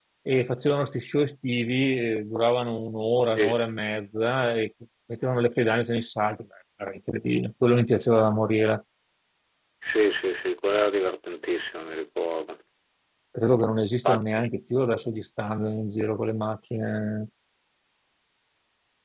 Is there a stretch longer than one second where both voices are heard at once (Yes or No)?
No